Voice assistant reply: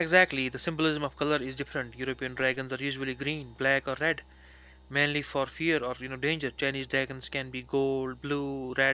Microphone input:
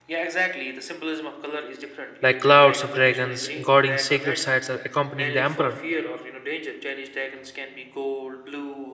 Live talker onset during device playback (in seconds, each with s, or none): 2.2 s